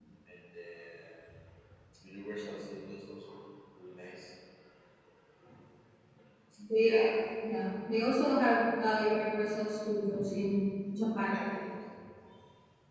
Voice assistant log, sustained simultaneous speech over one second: none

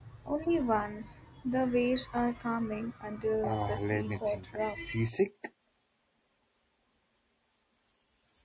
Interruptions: present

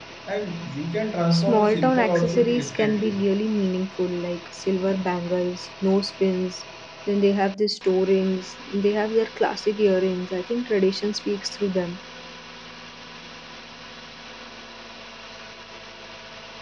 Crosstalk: present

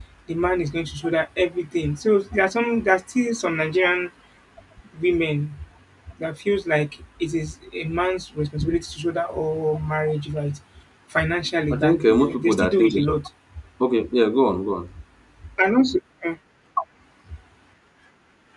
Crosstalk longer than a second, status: present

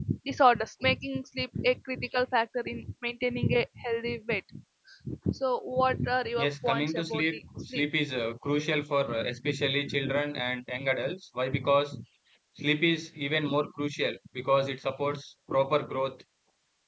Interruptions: present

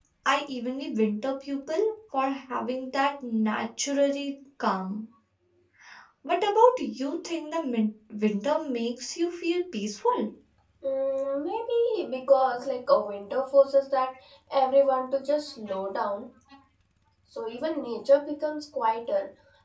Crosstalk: none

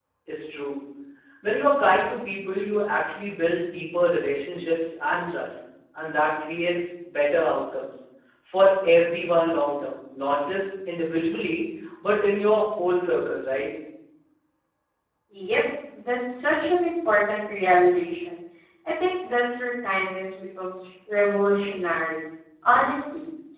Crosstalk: none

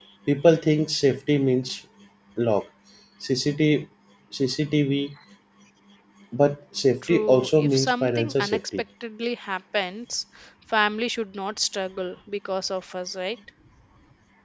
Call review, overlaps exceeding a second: present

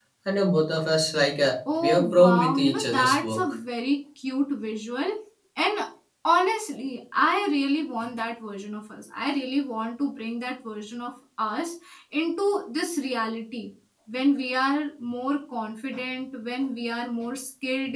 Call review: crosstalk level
present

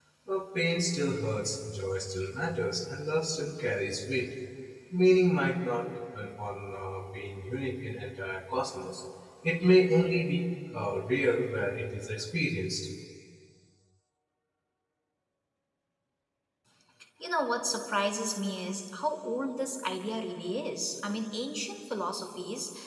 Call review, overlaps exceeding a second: none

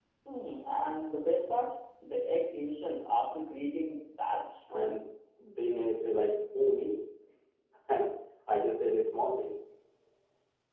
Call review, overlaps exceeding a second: none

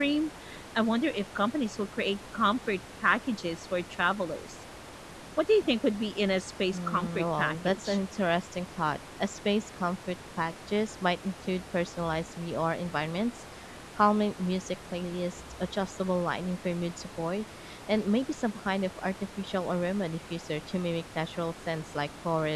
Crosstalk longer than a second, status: present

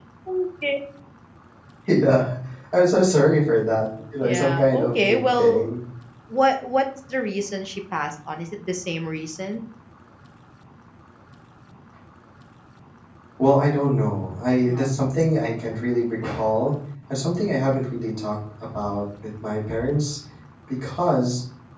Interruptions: present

